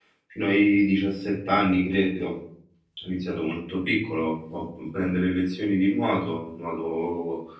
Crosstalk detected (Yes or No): No